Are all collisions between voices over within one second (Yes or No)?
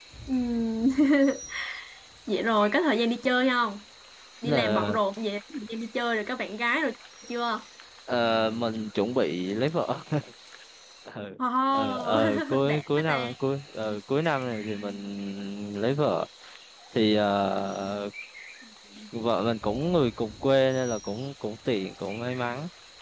No